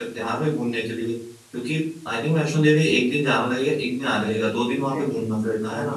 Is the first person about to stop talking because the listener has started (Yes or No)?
Yes